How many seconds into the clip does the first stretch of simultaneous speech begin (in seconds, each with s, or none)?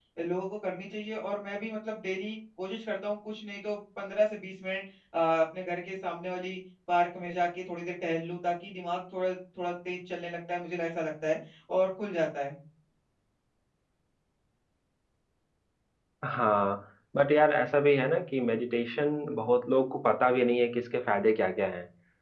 none